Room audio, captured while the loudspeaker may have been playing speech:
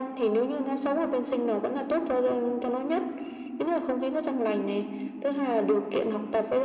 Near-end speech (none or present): none